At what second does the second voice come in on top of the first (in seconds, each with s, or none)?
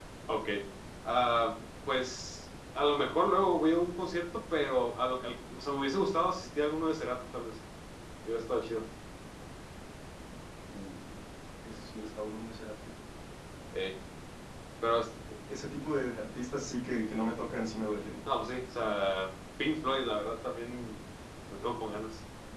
none